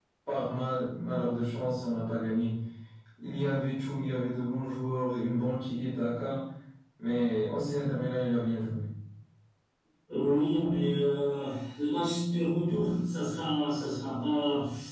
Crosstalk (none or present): none